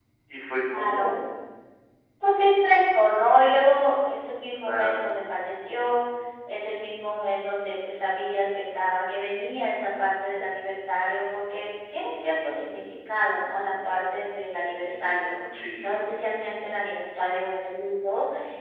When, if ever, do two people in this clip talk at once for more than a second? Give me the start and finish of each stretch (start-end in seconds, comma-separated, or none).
none